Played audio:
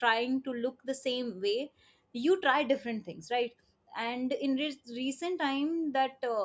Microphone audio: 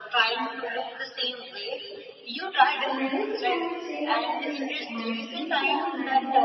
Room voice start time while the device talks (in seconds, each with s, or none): 2.8 s